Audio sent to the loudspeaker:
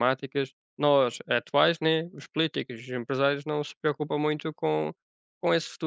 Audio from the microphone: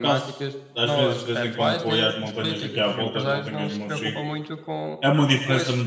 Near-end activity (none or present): present